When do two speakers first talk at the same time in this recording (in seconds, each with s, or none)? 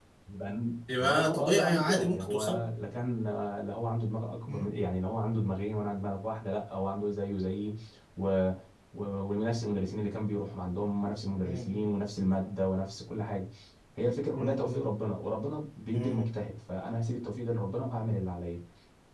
1.0 s